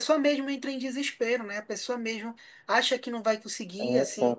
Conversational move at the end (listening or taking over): listening